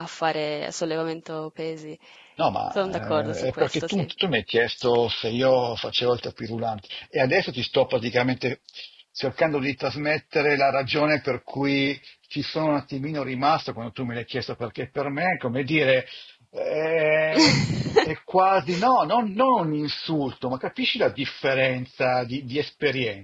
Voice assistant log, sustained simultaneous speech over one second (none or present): present